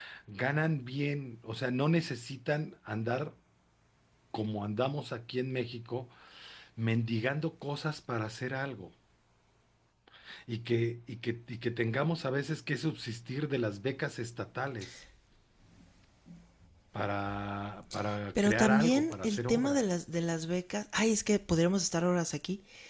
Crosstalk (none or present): present